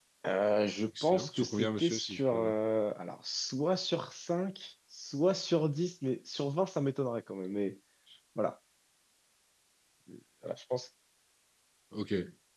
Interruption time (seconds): 1 s

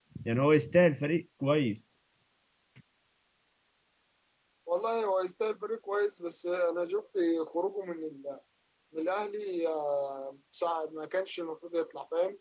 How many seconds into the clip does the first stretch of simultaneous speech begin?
none

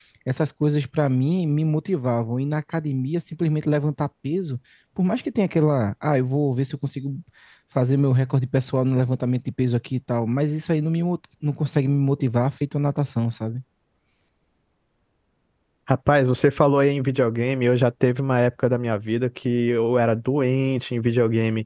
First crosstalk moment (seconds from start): none

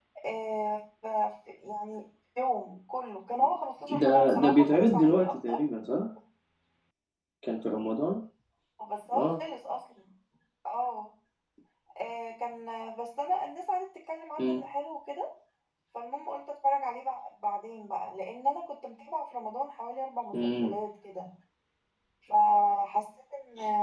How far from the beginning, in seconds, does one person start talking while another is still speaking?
4 s

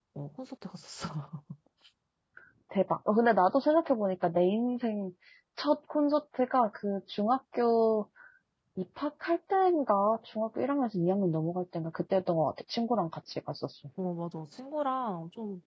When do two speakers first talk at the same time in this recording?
none

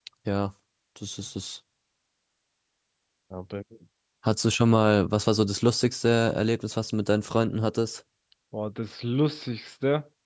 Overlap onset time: none

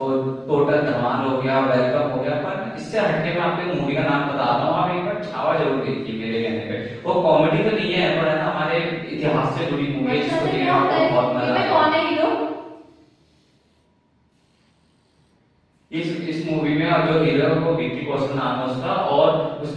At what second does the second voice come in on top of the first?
10 s

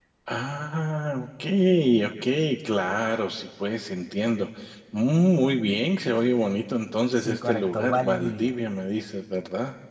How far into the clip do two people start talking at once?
7 s

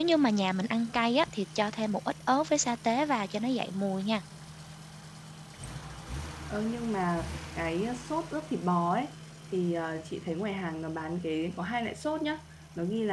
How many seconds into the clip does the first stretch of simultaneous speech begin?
none

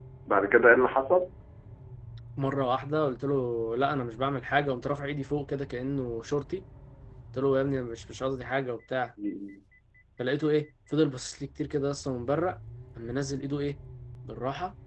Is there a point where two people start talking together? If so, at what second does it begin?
none

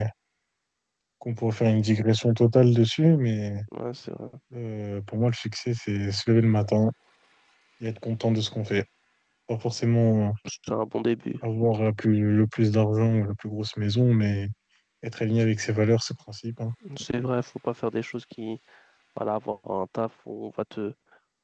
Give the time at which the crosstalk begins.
none

